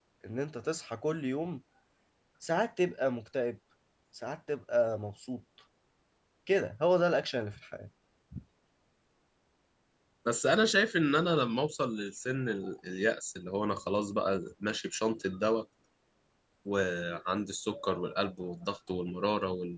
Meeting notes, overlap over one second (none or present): none